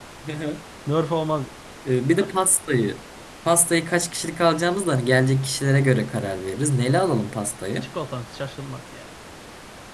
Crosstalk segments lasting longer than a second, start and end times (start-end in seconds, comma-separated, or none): none